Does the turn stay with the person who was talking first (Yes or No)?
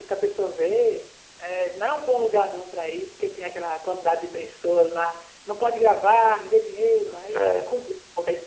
Yes